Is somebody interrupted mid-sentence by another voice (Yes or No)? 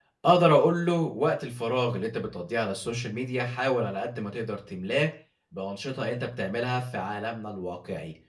No